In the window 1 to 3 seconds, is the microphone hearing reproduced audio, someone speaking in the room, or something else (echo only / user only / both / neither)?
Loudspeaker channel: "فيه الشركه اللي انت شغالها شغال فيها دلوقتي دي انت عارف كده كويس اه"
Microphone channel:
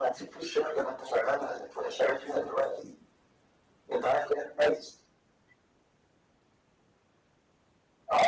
echo only